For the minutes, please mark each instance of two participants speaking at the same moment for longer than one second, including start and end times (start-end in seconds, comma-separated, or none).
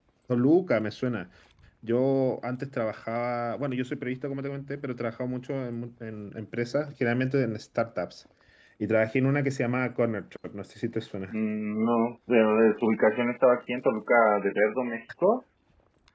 none